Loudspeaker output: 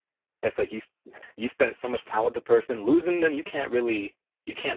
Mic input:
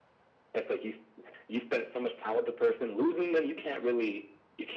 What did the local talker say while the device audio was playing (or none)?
none